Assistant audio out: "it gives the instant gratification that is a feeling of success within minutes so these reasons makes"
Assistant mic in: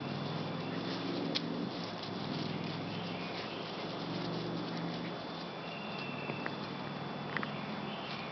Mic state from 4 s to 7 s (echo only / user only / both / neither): neither